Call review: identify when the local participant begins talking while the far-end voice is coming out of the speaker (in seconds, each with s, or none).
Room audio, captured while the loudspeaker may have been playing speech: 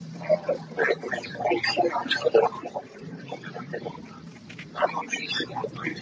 none